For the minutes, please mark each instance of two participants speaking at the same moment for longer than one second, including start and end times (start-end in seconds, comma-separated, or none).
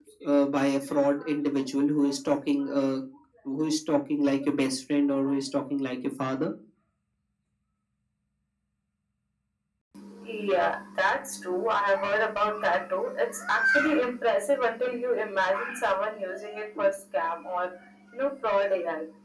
none